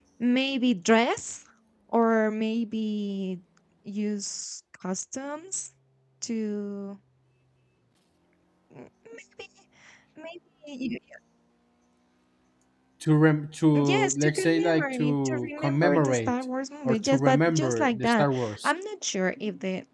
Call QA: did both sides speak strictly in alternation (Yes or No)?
No